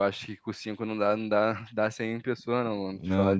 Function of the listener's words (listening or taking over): taking over